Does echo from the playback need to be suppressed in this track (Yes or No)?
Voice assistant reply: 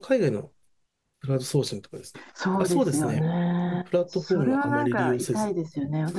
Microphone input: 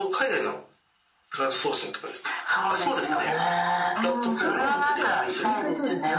Yes